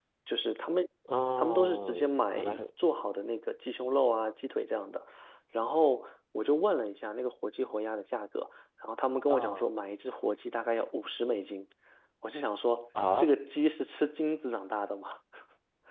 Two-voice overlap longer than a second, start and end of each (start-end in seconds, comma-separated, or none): 1.4-2.6